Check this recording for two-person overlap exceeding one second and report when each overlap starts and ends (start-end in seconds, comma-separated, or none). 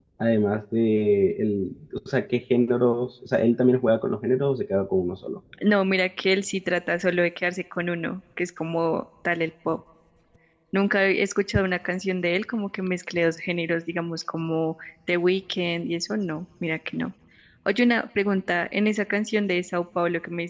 none